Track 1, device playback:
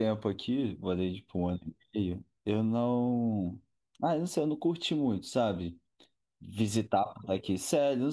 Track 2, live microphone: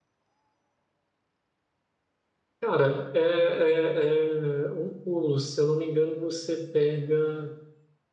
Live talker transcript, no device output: Cara, é, é, é um pulo, se eu não me engano, você pega

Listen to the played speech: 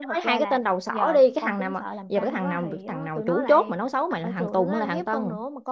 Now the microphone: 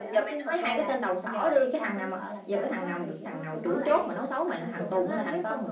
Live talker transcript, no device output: none

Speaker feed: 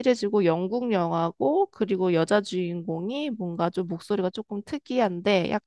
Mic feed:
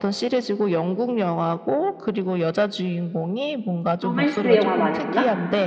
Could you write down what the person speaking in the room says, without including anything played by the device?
로맨스 영화 많이 보나?

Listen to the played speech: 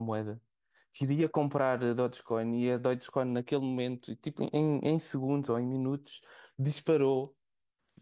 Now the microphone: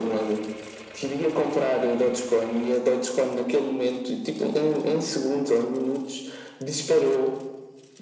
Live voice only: none

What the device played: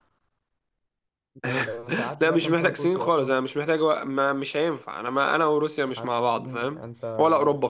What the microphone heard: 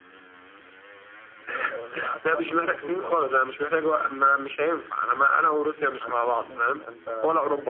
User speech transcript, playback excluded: none

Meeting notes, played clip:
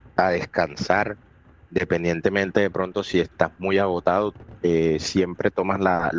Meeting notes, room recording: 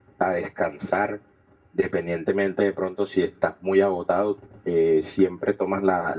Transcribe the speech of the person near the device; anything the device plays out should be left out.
none

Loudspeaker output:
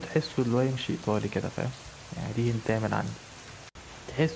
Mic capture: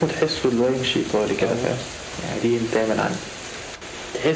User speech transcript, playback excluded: لا ووكر

